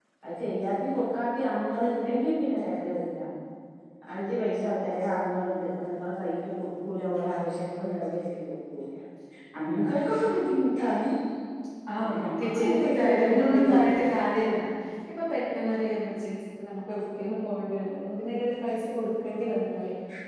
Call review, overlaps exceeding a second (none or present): present